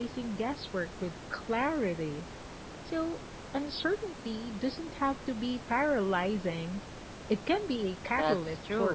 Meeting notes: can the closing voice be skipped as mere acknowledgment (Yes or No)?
No